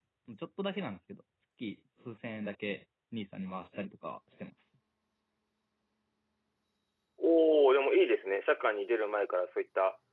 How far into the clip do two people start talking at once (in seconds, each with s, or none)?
none